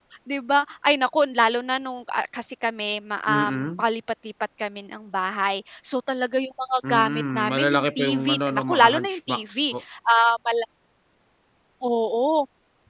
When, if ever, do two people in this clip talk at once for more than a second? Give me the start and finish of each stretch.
6.9-9.7

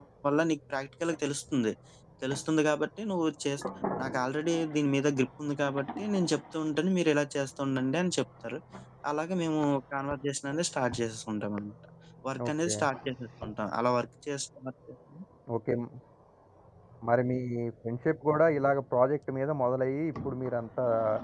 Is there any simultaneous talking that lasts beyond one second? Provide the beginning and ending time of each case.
none

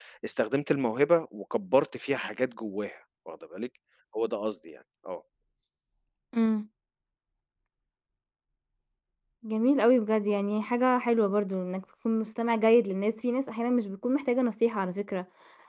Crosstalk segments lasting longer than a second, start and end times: none

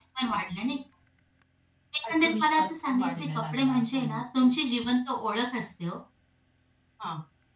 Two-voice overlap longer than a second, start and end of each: 2.1-4.5

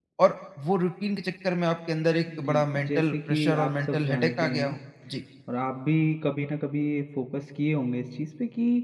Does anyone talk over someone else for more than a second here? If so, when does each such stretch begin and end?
2.4-4.7

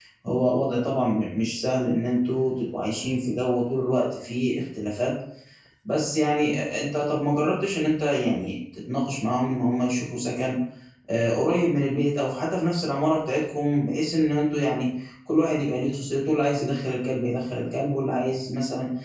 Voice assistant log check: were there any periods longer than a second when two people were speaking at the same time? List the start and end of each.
none

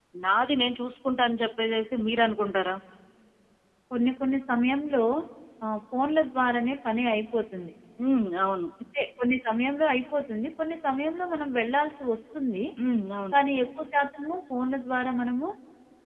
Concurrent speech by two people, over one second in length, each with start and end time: none

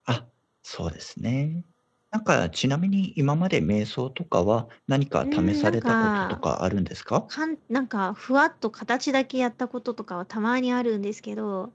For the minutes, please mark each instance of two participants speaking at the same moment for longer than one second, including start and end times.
5.2-6.4

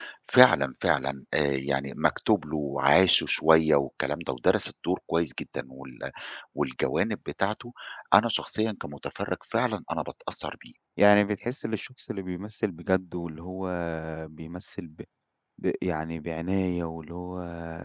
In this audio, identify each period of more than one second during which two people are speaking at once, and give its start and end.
none

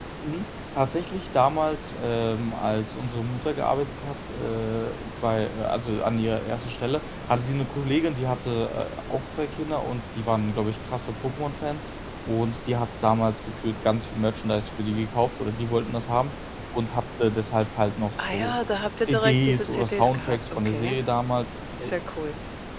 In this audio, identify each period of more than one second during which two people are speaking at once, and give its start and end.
19.0-21.0

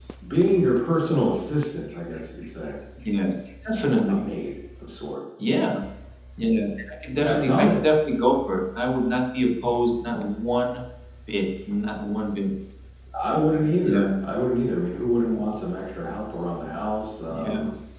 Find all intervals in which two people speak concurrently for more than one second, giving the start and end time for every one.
none

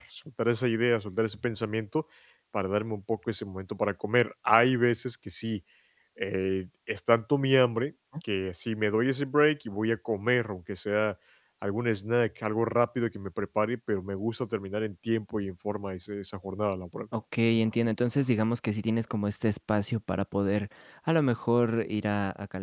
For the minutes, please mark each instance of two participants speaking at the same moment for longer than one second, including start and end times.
none

